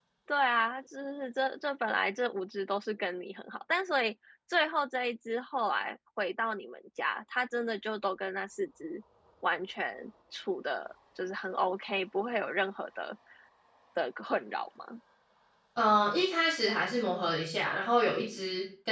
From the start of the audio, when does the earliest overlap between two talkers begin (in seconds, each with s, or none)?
none